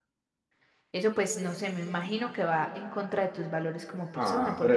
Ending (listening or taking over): taking over